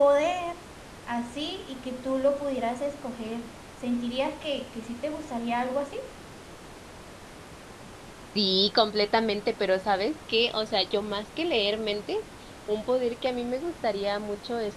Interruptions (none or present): none